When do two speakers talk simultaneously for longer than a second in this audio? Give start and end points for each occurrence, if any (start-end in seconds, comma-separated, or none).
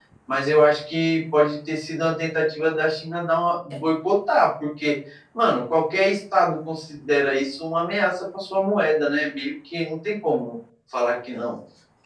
none